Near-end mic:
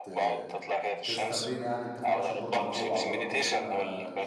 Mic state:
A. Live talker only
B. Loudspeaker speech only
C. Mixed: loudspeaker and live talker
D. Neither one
C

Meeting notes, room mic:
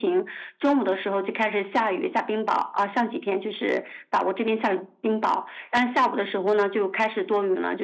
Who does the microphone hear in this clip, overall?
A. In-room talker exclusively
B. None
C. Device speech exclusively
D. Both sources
C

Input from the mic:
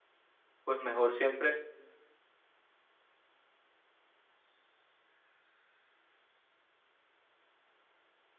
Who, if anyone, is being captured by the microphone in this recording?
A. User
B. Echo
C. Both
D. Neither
A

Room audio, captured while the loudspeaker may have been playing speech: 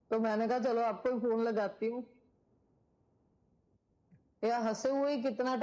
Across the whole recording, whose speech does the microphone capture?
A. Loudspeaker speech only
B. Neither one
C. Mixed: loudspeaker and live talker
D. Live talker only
A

